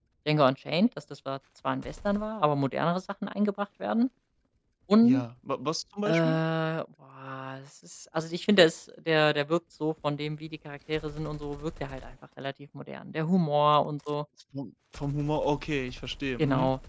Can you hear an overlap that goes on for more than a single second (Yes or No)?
No